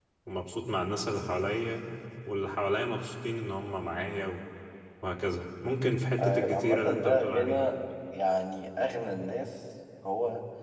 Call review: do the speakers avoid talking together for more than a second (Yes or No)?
No